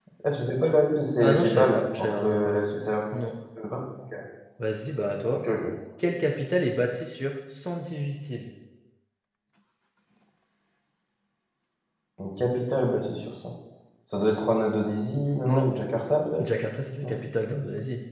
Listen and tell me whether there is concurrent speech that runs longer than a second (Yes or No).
Yes